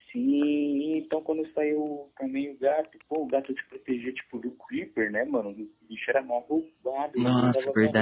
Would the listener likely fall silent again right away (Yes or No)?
No